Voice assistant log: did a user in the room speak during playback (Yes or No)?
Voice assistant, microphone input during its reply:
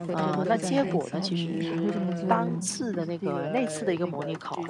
Yes